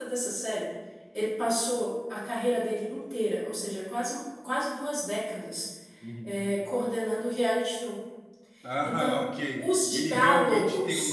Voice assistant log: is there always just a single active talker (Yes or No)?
No